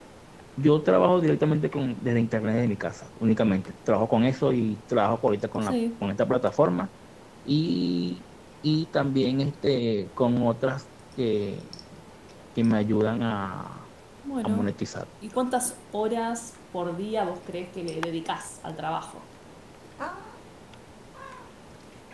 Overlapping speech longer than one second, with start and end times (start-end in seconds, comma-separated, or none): none